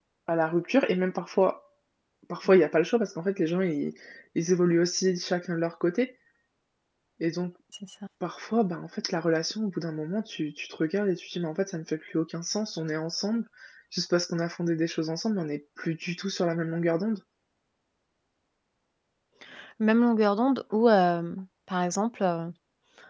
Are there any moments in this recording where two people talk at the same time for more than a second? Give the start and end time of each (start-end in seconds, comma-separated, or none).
none